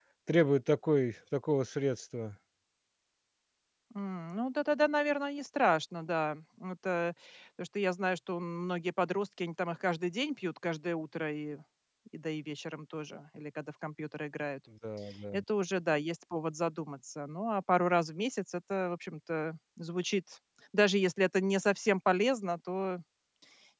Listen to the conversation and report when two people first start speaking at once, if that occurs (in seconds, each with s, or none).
none